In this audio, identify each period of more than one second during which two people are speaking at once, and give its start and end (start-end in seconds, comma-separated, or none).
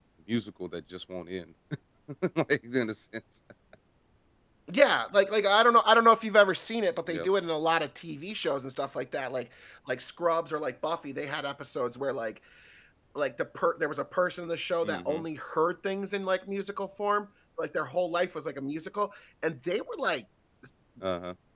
none